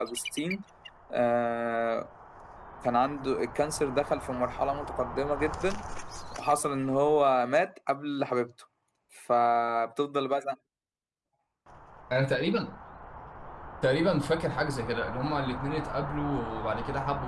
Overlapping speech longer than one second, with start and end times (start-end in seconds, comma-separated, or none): none